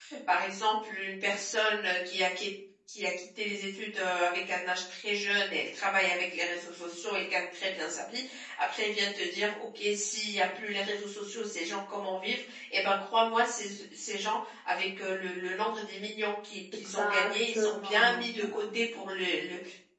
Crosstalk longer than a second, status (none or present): present